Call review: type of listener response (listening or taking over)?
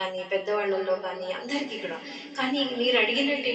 listening